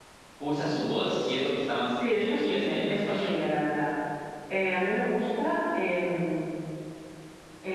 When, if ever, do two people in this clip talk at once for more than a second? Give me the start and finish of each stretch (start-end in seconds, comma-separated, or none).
2.0-3.3